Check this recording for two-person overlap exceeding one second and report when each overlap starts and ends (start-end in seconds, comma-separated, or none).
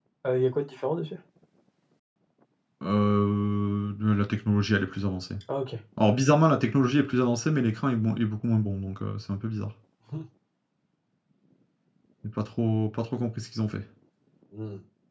none